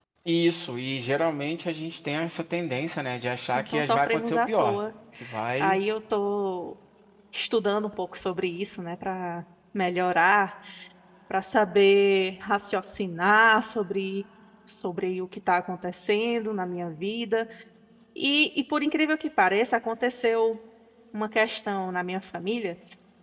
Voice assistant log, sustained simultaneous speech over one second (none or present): present